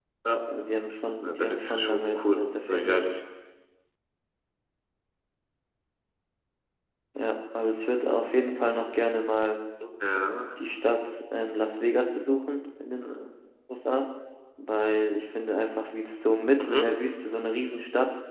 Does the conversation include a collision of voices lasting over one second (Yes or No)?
Yes